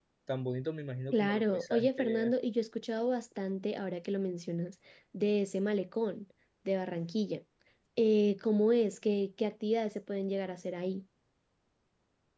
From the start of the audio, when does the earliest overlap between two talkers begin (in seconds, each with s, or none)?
1.1 s